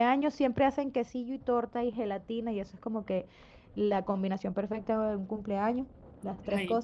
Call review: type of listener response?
listening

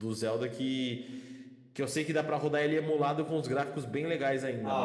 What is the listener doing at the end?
taking over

